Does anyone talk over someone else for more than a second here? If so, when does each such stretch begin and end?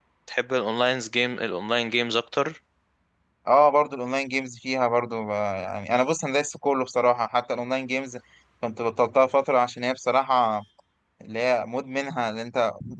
none

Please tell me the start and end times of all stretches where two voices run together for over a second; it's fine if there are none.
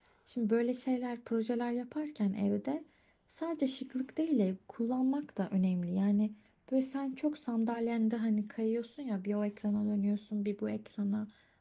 none

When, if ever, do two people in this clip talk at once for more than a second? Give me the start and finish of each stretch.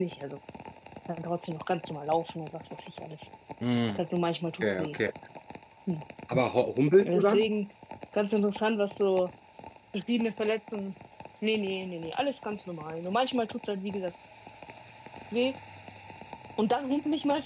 none

